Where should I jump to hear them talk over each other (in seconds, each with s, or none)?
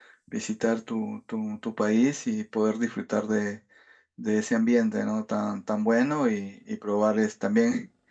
none